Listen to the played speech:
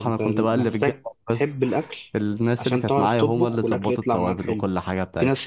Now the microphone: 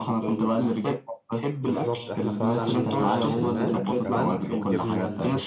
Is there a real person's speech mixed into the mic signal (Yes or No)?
Yes